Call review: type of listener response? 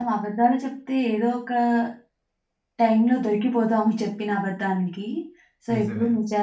listening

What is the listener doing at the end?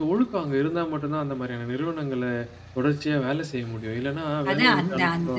taking over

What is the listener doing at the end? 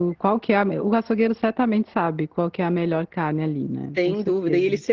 taking over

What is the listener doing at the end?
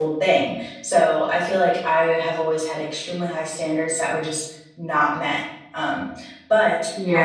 taking over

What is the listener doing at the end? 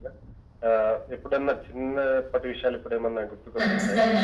taking over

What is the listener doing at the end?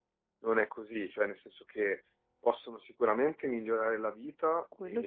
listening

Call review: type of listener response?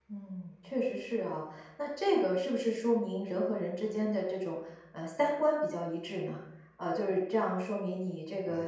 listening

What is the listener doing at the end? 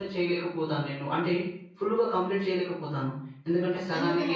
listening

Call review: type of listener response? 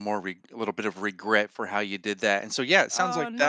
taking over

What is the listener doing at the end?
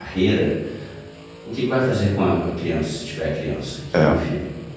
listening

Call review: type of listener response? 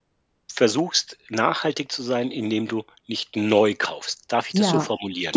taking over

